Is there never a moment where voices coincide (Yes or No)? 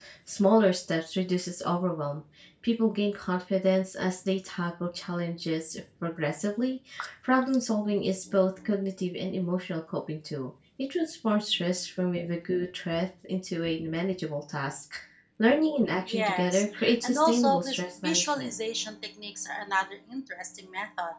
No